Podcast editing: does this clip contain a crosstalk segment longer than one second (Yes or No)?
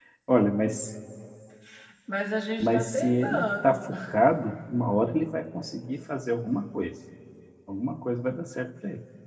Yes